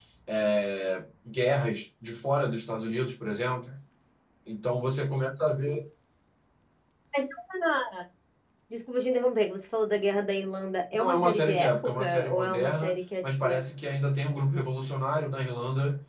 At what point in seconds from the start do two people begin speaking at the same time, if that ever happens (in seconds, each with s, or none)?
10.9 s